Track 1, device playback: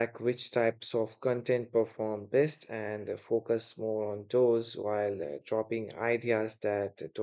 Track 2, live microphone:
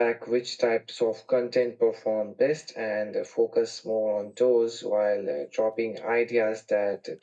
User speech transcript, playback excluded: none

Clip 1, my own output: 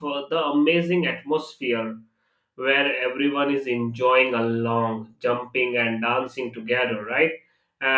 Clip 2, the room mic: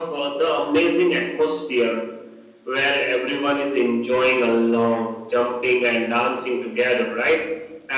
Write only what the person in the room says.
none

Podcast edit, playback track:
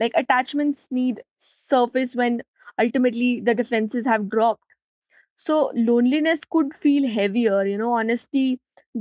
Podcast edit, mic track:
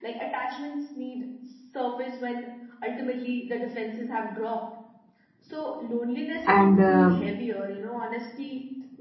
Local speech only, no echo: and uh,

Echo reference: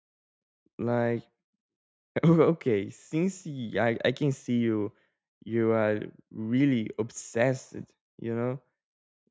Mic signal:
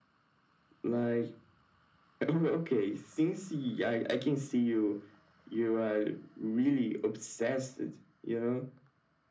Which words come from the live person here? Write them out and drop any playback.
none

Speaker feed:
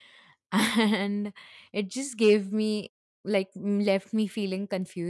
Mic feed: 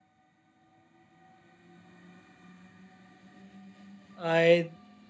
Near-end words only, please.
I

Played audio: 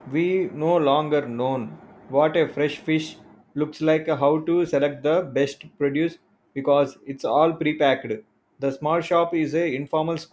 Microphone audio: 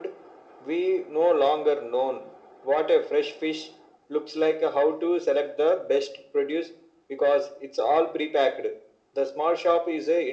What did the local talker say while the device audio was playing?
none

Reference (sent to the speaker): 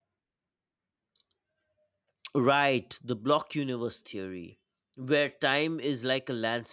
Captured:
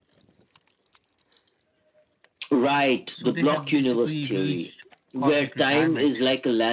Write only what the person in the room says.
So they have basically reached cosmic retirement.

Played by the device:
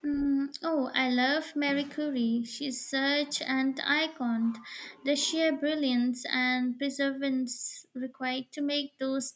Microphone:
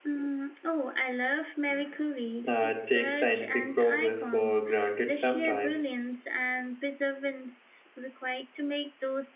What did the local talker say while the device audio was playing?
uh, take scientific progress for granted sometimes.

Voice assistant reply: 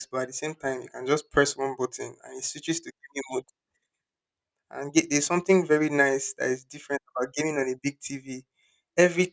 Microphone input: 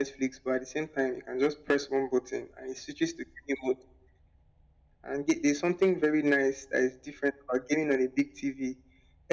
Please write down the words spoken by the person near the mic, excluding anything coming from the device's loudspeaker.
none

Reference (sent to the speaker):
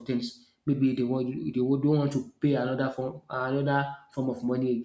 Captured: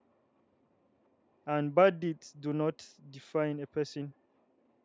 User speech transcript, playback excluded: and bad deeds do not define a person

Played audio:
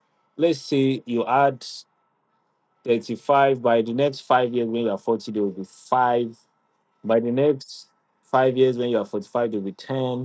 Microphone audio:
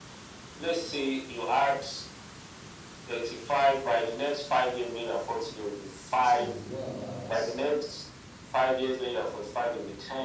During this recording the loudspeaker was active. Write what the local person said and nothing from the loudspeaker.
So what about

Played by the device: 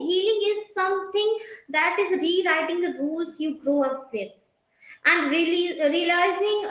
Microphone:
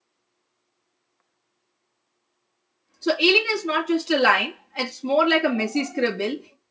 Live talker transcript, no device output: So healing is not just a line, it's more like a messy scribble.

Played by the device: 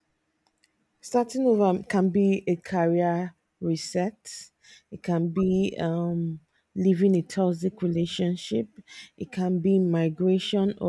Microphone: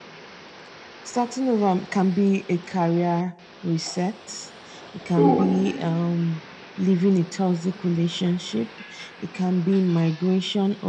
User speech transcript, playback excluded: So

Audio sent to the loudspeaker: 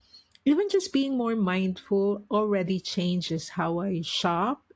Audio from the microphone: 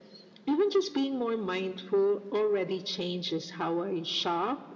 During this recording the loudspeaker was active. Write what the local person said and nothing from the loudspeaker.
none

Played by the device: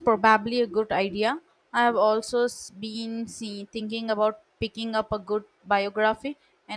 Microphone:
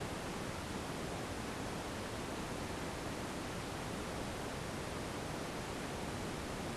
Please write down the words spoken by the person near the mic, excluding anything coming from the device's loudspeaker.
none

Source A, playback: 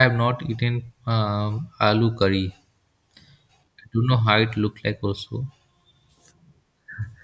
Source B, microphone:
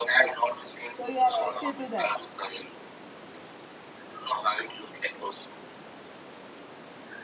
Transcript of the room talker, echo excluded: So you are addicted to that.

